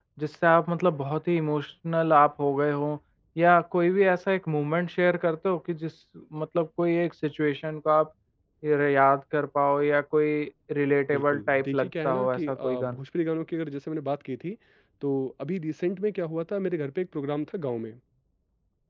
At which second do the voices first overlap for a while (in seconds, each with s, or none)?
11.1 s